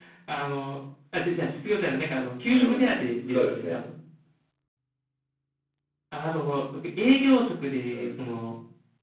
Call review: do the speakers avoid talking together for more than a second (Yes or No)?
No